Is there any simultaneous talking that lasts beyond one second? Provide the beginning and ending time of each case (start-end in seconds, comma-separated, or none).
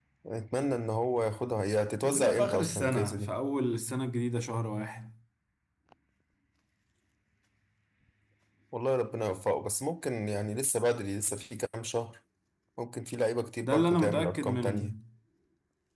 2.0-3.4, 13.6-14.9